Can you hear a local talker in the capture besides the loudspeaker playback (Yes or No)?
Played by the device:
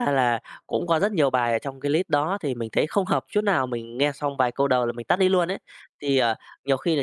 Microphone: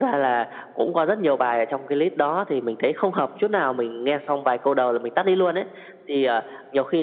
No